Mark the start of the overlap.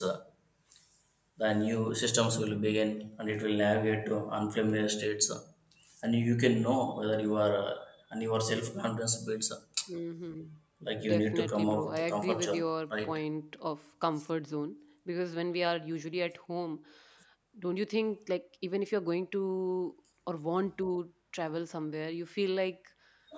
11.0 s

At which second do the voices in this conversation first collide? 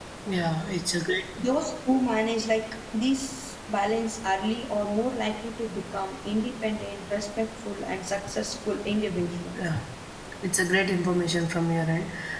none

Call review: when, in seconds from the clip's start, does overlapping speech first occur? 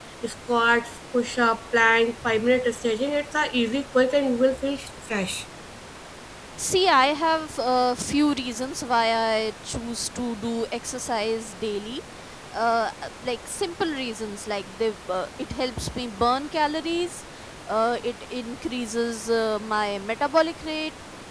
none

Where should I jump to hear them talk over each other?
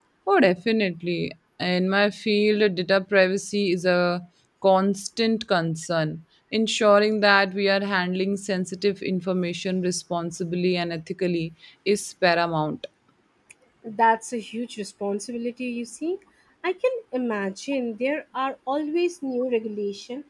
none

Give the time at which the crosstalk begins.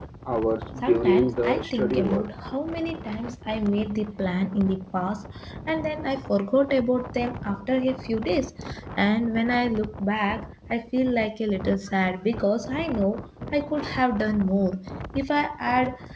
0.8 s

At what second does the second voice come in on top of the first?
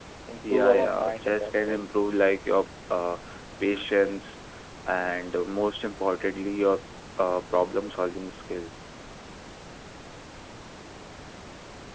0.5 s

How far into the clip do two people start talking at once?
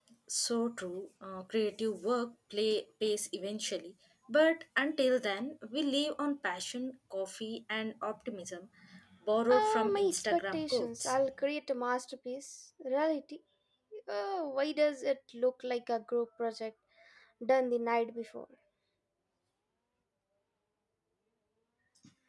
9.5 s

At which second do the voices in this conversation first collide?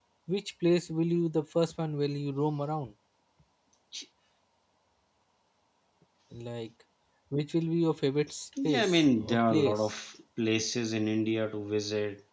8.6 s

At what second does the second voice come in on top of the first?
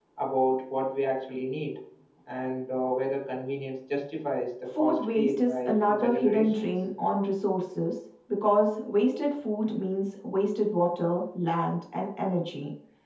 4.7 s

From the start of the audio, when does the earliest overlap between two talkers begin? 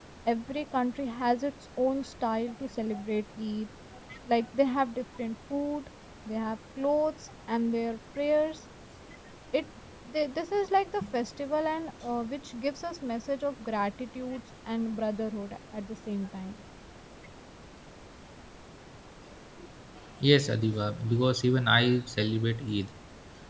none

